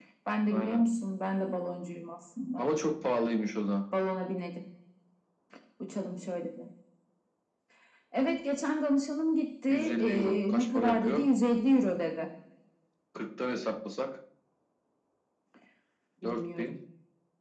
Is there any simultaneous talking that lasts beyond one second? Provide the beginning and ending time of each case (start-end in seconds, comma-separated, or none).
9.7-11.3